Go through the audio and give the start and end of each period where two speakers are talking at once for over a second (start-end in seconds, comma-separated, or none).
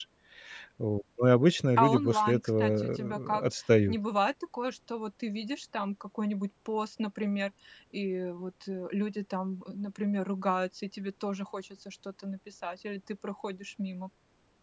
1.8-3.4